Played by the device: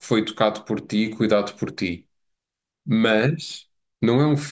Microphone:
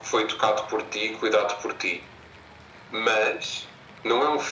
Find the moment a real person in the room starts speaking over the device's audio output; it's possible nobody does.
none

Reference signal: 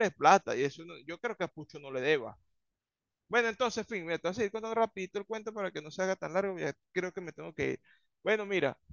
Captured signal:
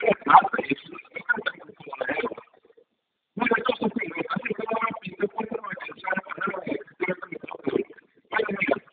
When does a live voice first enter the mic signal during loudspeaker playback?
none

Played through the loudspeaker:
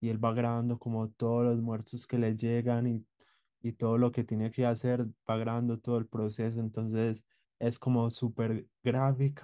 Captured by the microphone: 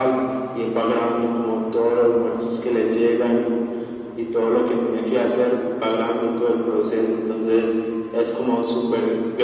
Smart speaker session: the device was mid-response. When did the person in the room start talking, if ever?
none

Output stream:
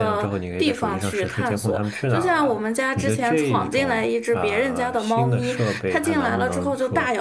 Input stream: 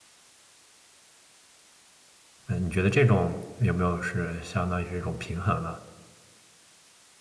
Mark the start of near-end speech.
2 s

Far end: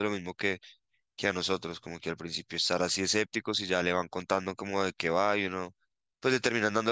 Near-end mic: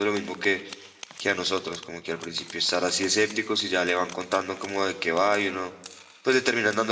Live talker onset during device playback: none

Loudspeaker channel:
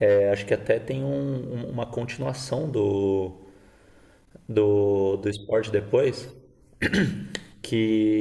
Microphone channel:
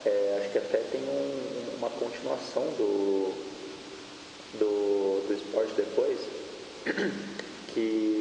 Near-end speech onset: none

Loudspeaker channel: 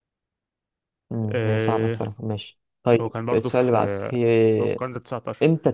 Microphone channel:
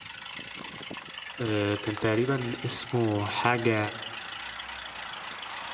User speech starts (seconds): 1 s

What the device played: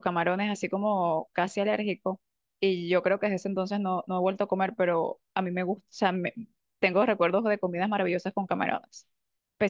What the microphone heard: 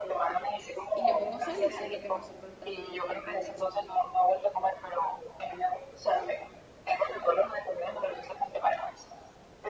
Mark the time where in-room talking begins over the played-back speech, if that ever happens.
1 s

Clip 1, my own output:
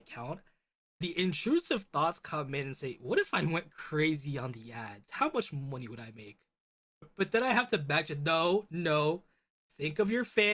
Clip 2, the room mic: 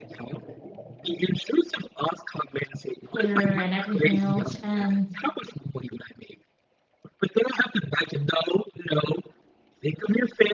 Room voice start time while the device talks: 3 s

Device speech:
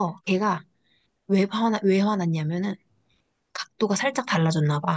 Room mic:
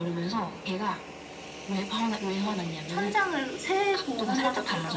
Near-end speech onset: 2 s

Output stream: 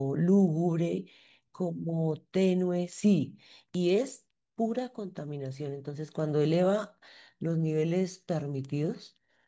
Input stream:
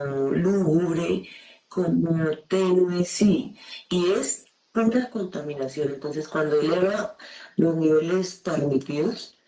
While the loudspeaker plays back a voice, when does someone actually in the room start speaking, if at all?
none

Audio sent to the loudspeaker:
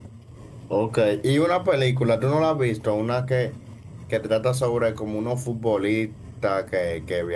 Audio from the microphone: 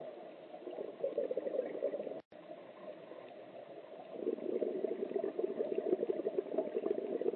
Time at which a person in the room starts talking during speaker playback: none

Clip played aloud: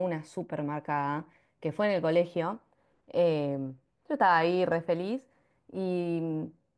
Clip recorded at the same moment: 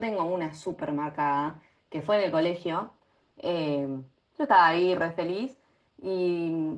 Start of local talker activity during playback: none

